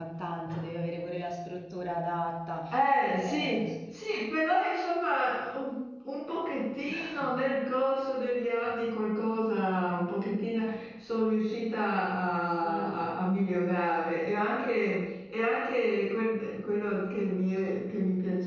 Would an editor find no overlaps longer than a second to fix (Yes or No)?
Yes